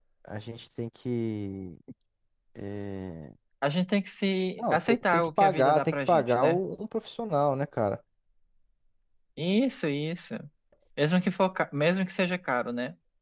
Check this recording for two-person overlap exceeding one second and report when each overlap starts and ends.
4.6-6.6

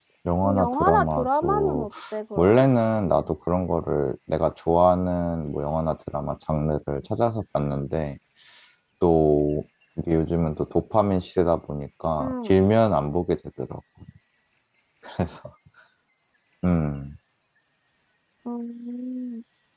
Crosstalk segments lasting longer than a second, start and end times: 0.6-1.9

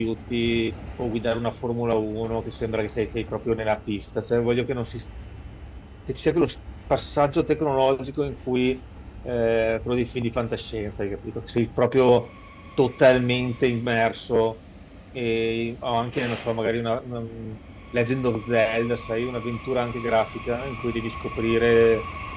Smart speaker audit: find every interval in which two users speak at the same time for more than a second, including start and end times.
none

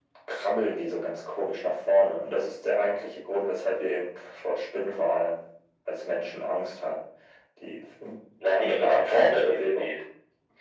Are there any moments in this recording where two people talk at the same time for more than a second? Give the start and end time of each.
8.5-10.0

